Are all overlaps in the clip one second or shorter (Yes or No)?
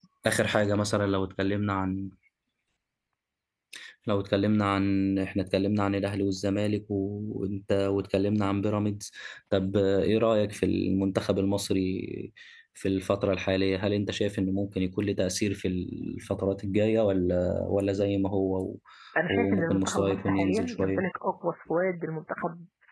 No